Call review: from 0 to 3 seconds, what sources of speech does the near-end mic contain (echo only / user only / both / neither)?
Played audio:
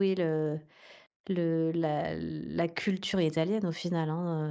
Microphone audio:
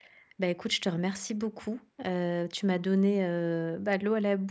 user only